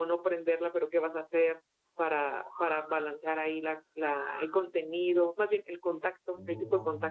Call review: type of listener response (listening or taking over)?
listening